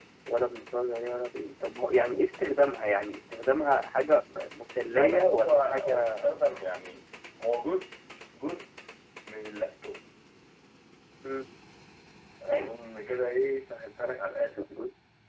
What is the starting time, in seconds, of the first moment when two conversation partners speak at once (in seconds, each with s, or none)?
4.9 s